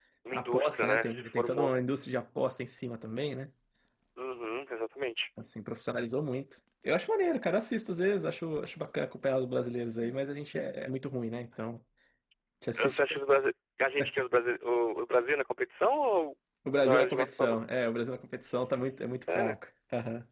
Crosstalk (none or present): present